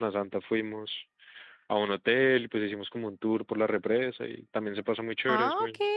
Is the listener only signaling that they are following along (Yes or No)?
No